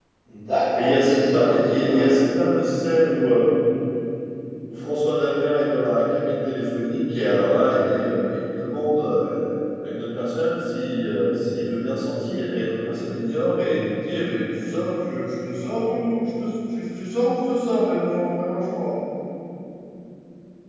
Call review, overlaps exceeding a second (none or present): present